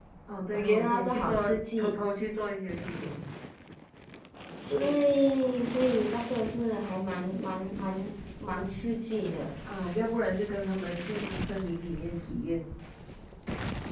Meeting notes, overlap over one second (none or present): present